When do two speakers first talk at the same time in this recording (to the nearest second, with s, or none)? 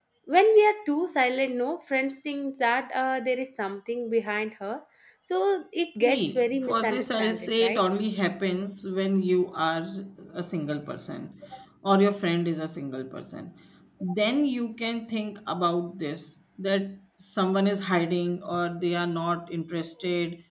6 s